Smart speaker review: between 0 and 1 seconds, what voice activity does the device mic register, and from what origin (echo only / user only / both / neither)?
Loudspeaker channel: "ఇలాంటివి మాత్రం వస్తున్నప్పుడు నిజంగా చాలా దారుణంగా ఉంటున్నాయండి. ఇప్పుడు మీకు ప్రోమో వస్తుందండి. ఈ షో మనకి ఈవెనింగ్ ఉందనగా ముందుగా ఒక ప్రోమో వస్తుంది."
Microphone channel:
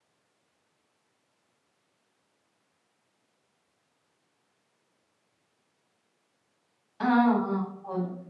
neither